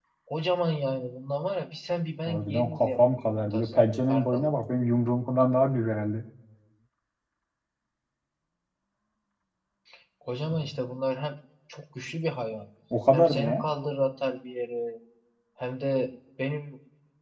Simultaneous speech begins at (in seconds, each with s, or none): 2.2 s